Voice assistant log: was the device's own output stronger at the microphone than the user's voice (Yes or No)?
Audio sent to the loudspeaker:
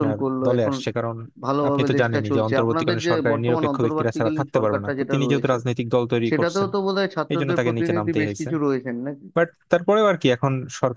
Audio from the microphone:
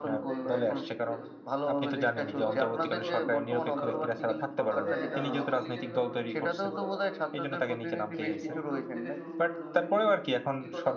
Yes